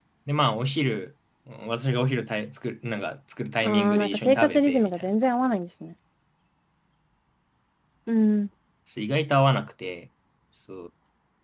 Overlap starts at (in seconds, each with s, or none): 3.6 s